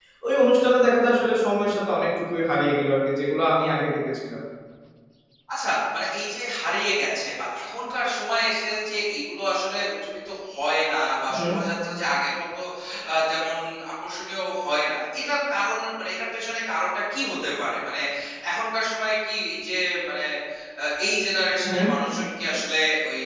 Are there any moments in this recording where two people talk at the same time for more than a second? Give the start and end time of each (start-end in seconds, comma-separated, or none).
none